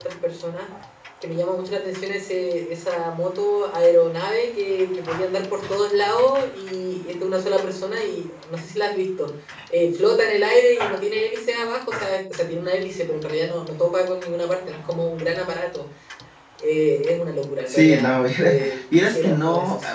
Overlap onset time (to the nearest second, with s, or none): 18 s